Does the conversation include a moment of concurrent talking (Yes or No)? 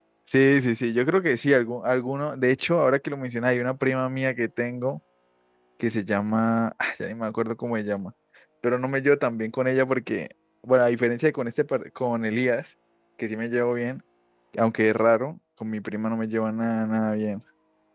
No